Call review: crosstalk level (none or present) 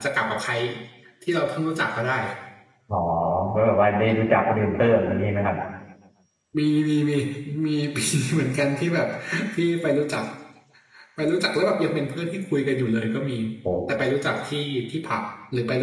none